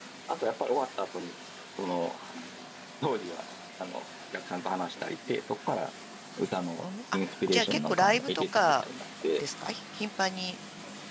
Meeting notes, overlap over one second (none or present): present